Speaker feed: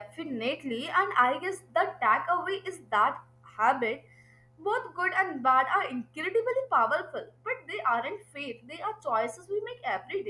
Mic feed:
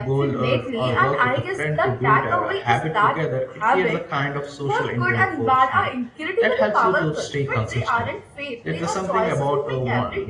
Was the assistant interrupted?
Yes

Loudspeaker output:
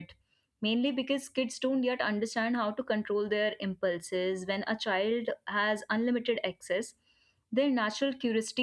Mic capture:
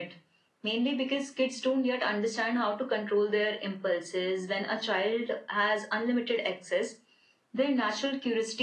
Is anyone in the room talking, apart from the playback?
No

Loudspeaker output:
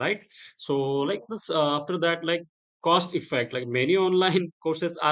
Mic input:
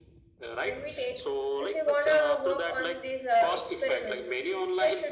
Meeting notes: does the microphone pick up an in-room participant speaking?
Yes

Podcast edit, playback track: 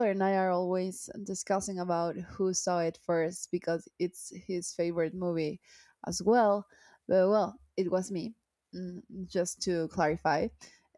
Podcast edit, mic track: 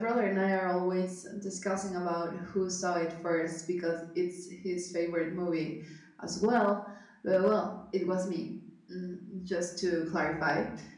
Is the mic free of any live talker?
Yes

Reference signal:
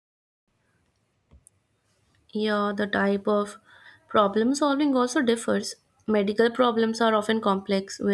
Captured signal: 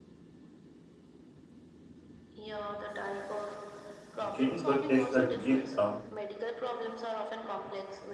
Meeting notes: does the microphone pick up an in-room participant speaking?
Yes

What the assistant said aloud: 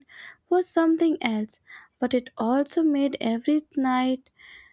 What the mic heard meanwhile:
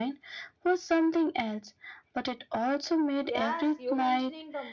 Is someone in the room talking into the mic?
Yes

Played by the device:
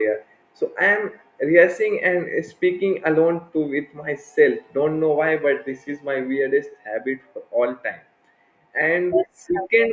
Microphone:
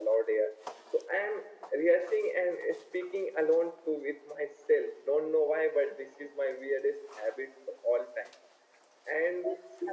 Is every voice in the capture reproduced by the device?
Yes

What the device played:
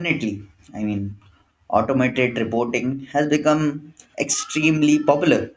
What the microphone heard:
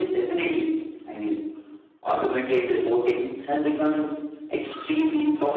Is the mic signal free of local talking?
Yes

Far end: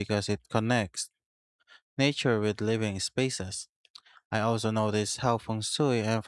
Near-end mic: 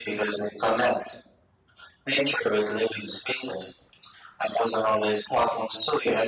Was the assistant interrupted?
No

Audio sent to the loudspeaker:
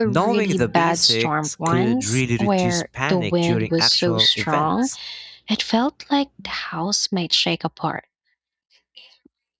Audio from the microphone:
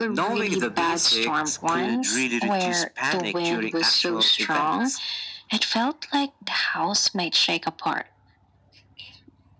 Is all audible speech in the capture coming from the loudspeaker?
Yes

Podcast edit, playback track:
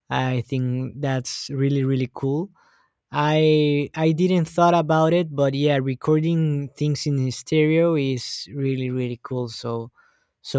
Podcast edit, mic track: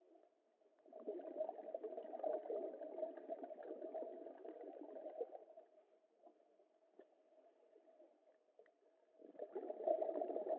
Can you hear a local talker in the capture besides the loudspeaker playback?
No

